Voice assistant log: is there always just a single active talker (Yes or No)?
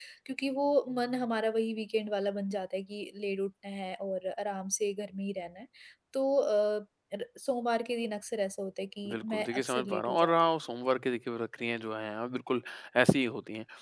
No